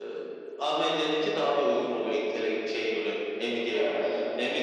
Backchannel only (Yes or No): Yes